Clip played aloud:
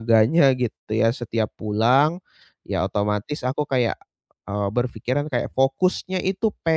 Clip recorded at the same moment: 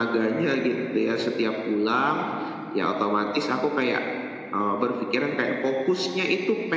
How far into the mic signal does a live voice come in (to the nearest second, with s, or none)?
none